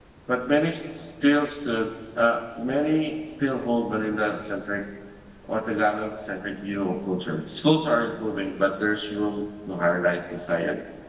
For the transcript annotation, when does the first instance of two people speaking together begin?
none

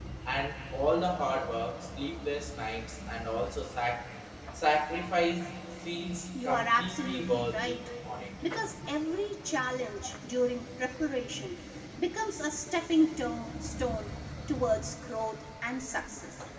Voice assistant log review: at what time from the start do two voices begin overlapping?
6.3 s

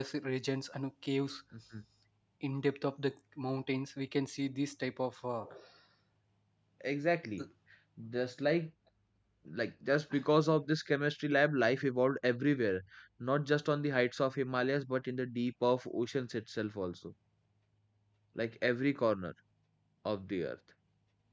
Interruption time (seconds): none

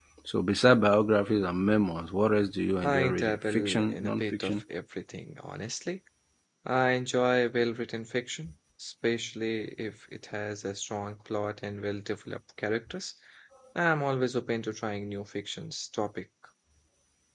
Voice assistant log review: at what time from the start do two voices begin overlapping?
2.8 s

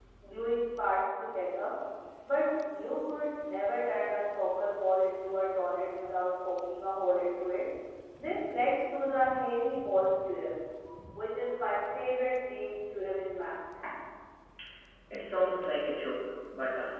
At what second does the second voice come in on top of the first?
none

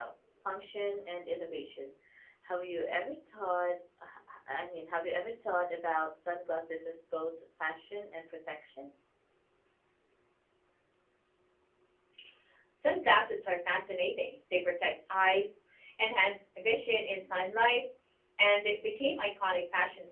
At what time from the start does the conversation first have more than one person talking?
none

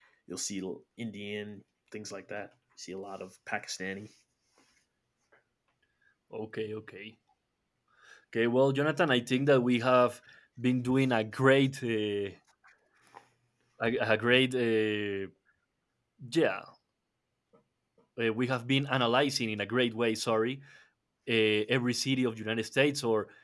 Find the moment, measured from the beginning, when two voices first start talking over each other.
none

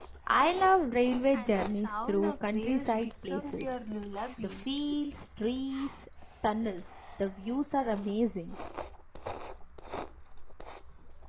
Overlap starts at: 1.3 s

